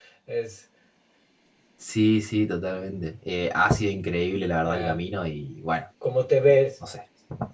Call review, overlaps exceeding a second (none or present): none